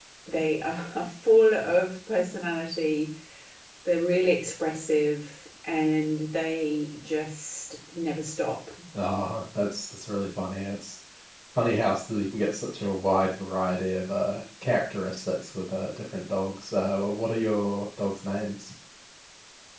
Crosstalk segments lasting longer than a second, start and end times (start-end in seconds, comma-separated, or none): none